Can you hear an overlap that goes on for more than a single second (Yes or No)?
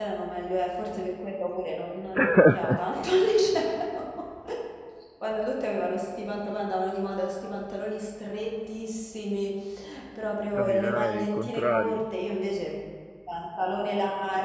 Yes